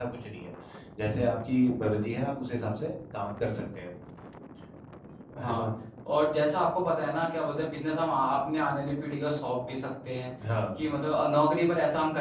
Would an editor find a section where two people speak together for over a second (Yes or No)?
No